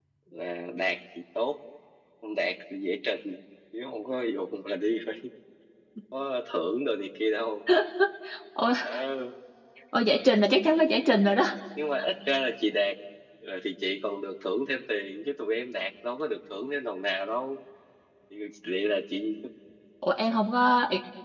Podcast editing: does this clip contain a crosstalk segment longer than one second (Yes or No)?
No